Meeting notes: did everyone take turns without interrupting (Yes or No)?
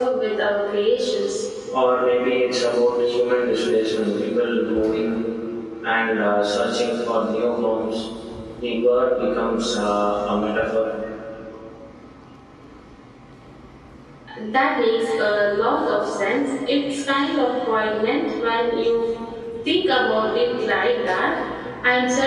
Yes